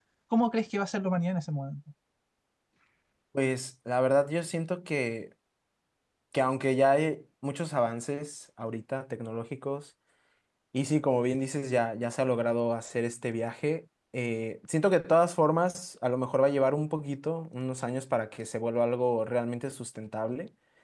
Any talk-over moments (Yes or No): No